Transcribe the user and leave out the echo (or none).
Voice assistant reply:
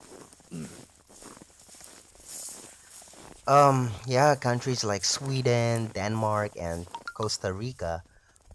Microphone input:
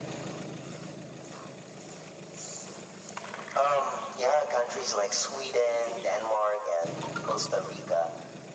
none